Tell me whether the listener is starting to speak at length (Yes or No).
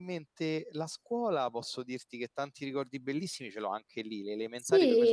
No